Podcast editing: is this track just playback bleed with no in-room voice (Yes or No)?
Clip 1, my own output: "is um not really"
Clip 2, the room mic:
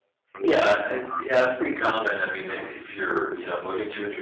No